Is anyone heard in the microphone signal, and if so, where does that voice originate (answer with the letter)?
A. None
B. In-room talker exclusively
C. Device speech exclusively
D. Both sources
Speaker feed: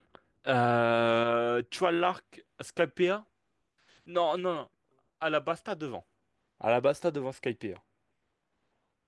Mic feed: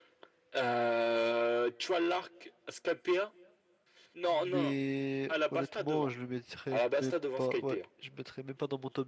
D